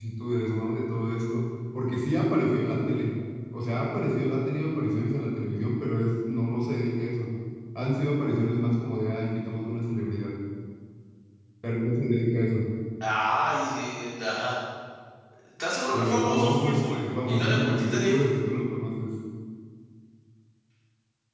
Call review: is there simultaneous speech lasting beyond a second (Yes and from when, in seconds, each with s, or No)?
Yes, from 15.9 s